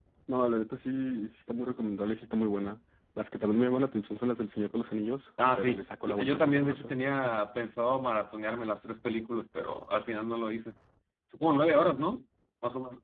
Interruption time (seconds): 5.4 s

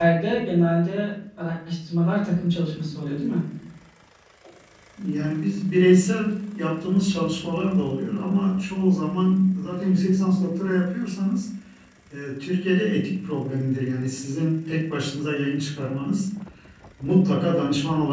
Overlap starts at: none

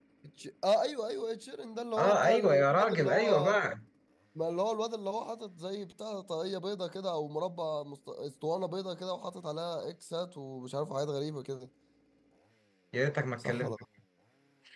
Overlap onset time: 2.0 s

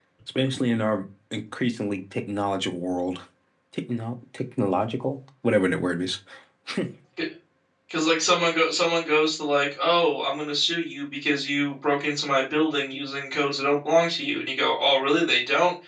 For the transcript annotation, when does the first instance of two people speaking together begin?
none

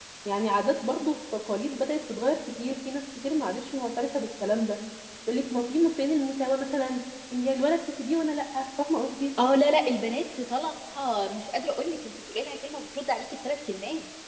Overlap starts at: none

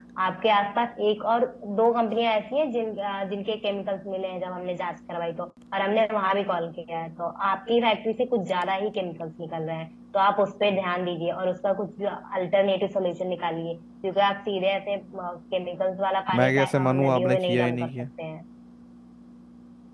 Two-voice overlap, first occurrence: 16.3 s

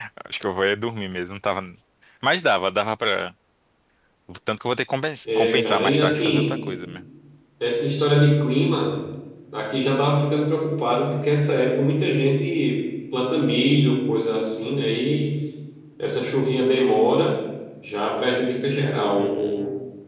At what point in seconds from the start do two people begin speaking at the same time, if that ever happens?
5.2 s

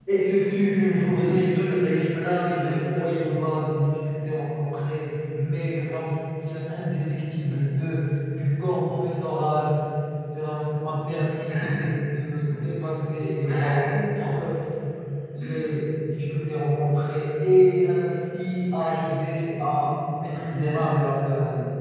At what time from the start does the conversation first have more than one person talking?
1.0 s

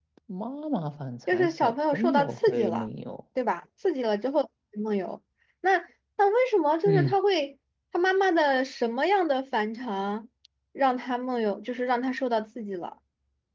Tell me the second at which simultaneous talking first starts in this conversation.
1.3 s

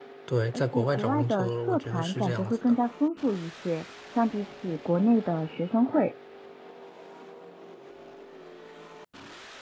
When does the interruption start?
0.5 s

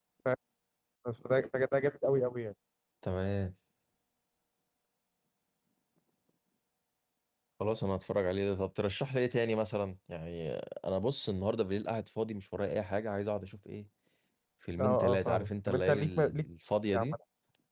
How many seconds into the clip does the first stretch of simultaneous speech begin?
14.8 s

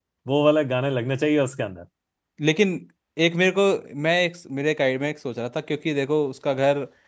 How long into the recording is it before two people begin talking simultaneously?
none

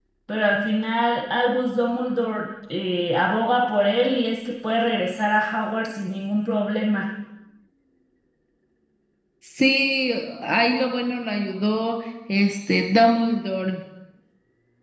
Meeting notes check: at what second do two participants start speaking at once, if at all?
none

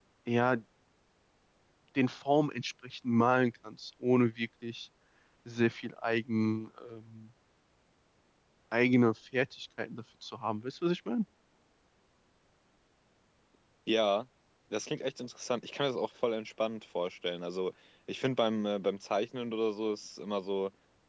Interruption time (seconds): none

